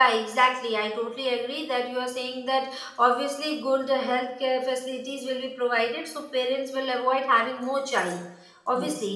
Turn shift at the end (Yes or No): No